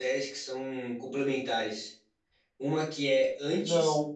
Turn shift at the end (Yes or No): No